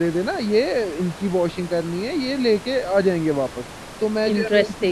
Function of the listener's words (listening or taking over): listening